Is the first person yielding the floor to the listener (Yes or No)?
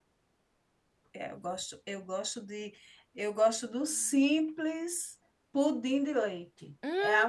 Yes